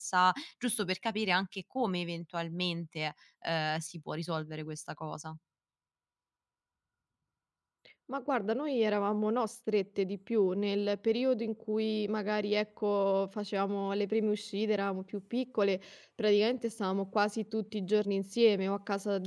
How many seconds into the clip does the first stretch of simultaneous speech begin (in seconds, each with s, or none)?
none